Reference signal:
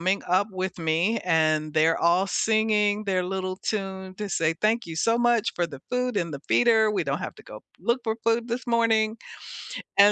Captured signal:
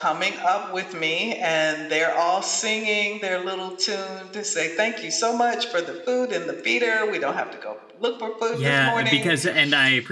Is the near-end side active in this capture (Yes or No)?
Yes